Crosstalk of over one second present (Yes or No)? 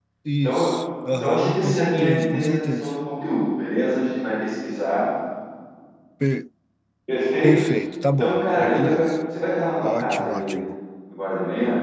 Yes